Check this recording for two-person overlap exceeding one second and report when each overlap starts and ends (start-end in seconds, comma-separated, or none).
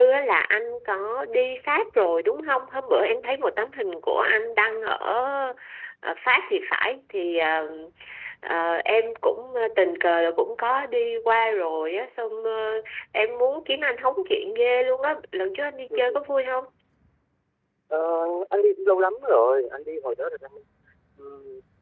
none